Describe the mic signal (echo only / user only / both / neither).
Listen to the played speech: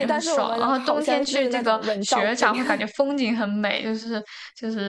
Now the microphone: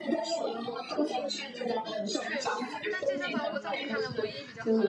both